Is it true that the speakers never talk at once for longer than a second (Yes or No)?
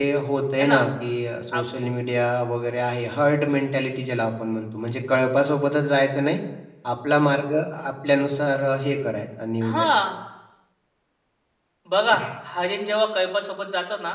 Yes